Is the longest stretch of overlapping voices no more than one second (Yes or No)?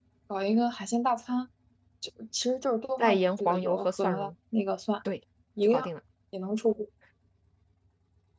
No